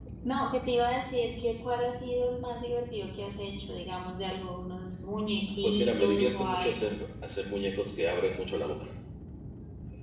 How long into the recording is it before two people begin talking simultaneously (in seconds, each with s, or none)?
5.6 s